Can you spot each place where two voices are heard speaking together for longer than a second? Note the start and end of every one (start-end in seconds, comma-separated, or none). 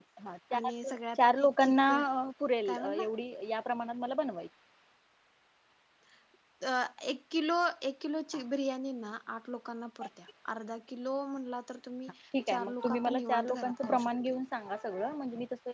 0.6-2.0, 12.5-14.3